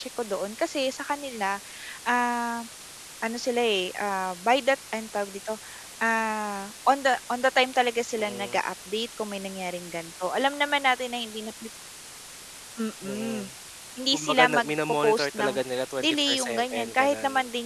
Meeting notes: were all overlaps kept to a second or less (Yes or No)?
No